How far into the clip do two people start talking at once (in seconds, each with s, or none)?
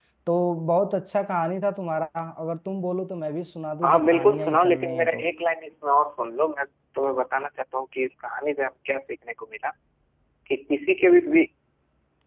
3.8 s